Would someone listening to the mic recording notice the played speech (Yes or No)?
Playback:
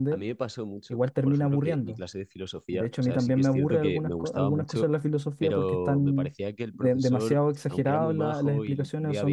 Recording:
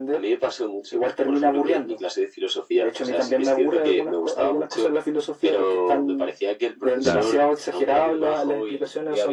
Yes